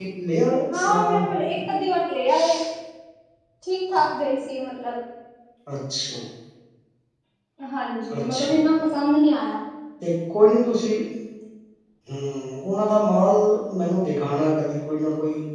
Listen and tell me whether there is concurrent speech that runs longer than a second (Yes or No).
No